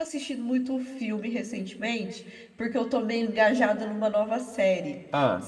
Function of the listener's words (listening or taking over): listening